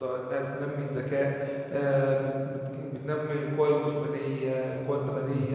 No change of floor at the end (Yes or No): Yes